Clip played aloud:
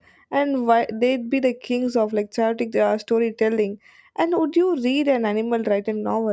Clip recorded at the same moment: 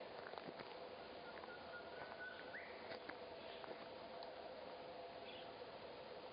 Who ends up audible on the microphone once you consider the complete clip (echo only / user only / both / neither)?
neither